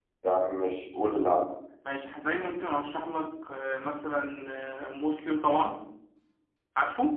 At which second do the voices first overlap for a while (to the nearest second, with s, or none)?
none